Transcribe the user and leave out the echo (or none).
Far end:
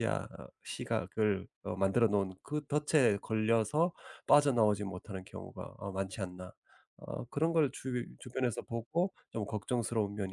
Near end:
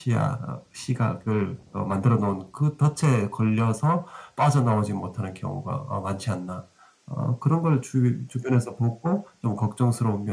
none